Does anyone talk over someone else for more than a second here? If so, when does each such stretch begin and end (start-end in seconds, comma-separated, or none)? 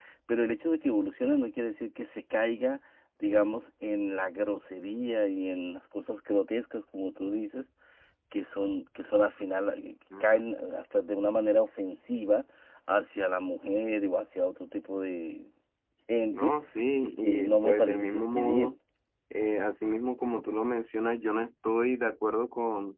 17.0-18.8